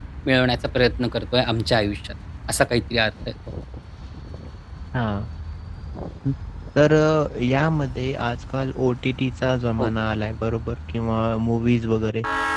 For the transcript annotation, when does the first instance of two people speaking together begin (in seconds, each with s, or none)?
none